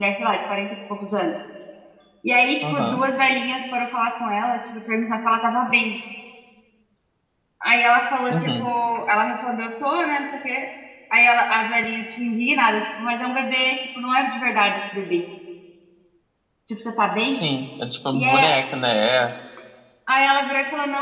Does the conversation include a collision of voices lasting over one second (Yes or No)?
No